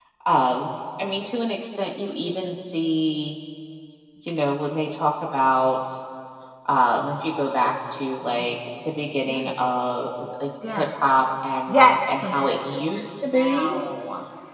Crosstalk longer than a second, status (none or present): present